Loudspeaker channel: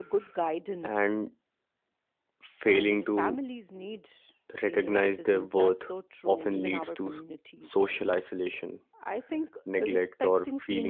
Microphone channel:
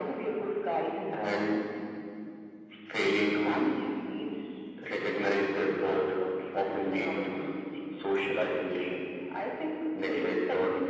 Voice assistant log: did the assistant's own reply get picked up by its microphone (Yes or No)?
Yes